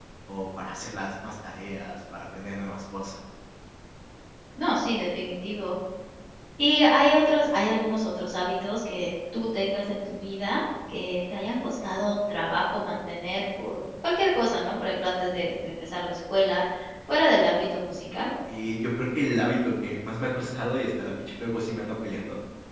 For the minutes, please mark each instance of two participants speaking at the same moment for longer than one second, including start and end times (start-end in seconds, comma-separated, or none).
none